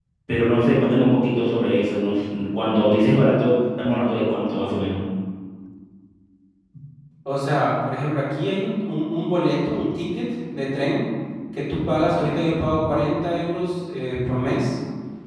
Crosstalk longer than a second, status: none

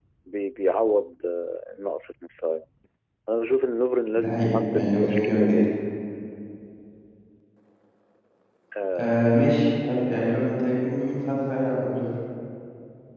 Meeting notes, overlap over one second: present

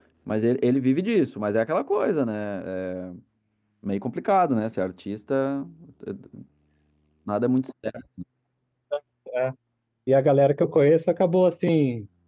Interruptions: none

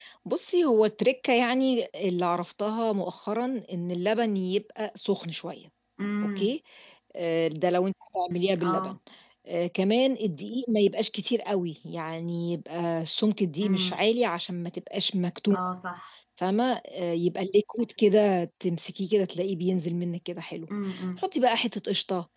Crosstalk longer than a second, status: none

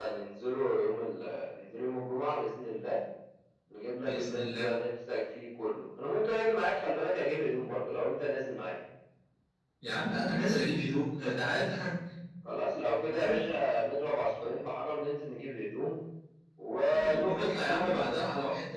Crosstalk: present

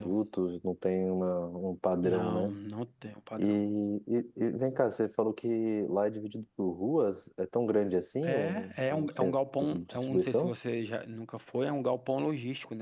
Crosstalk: present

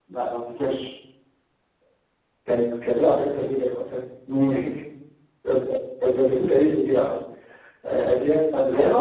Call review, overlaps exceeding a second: none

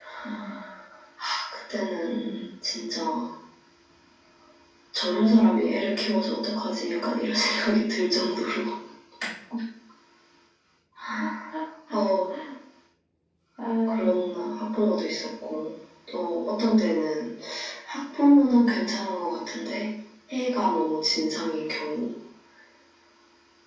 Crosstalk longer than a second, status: none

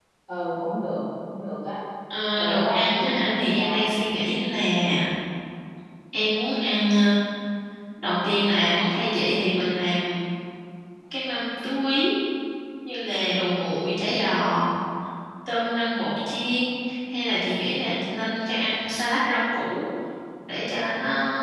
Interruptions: present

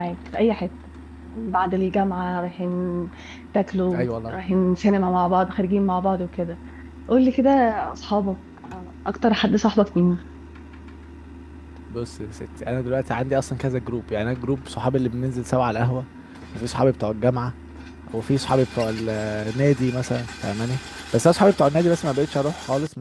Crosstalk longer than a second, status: none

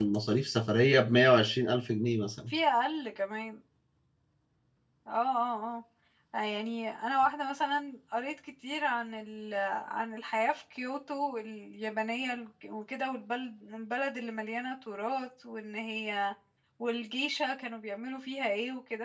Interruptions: none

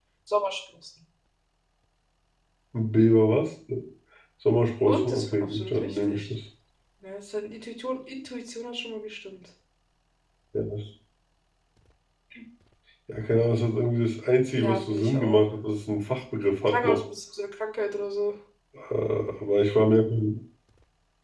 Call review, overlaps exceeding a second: present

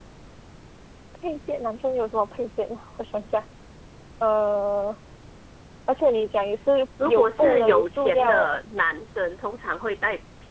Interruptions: present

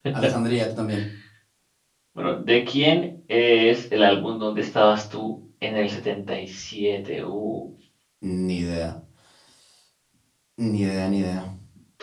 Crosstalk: none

